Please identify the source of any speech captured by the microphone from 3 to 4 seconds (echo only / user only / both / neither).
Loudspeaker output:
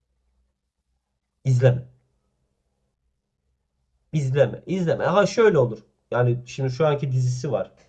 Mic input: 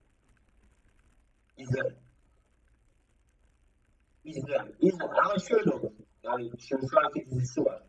neither